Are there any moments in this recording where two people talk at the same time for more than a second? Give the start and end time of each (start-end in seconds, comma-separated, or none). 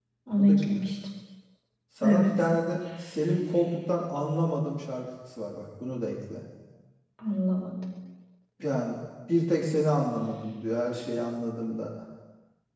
none